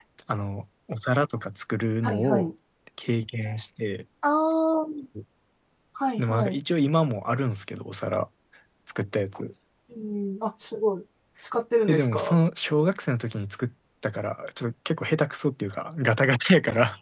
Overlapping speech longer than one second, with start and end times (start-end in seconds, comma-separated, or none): none